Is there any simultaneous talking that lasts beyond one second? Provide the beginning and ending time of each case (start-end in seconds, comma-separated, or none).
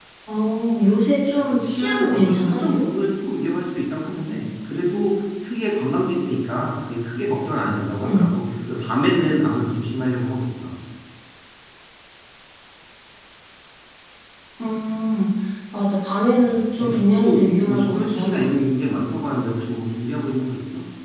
1.4-2.8, 16.4-18.4